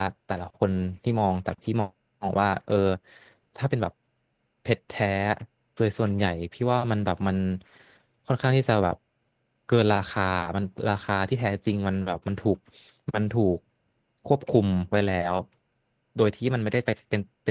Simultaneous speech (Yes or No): No